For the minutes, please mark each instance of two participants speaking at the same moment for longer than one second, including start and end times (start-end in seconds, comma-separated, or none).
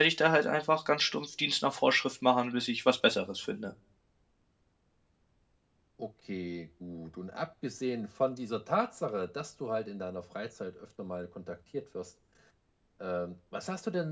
none